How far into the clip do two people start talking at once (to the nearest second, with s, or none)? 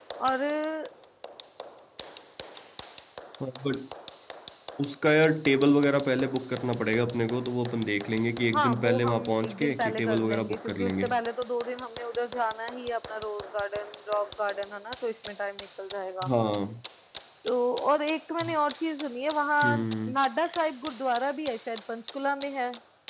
9 s